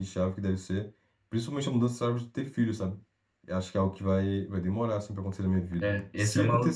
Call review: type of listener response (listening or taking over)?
taking over